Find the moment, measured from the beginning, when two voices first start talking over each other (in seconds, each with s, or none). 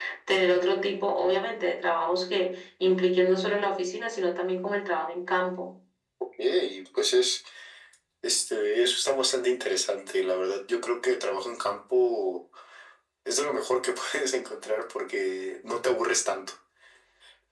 none